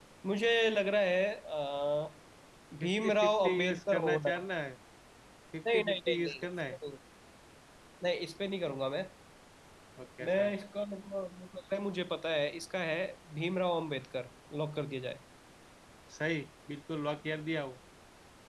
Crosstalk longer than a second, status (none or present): present